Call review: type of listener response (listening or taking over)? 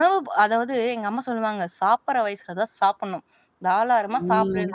listening